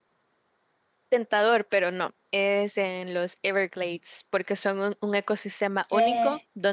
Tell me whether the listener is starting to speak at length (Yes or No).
No